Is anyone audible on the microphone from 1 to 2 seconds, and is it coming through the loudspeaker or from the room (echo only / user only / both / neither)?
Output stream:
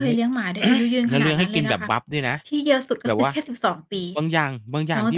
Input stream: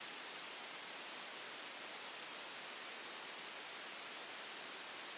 neither